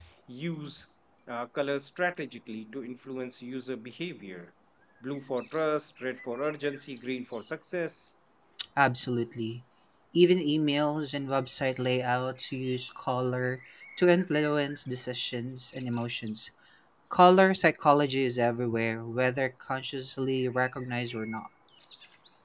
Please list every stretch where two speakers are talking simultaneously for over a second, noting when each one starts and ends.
none

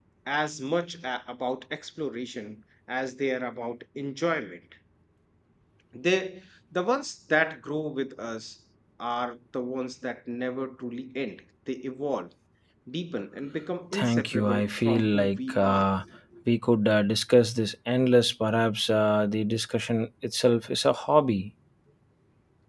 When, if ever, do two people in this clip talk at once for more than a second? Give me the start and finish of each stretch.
13.9-15.9

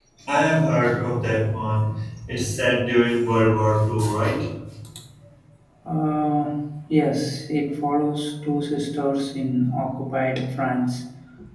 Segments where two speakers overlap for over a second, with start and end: none

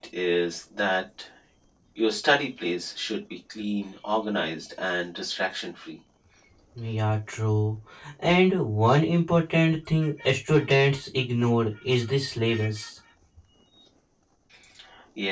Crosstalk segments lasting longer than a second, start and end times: none

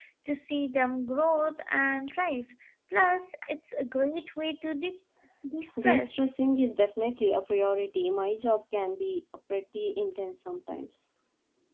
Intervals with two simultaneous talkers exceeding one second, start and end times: none

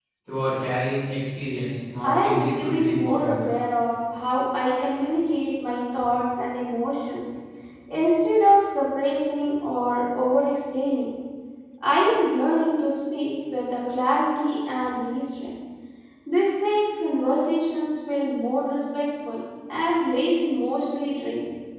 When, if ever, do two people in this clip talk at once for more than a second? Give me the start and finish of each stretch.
2.0-3.4

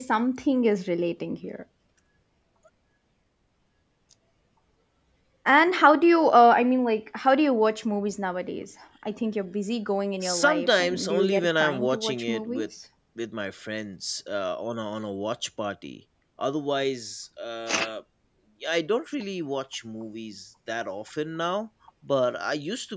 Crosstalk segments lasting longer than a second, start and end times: 10.2-12.7

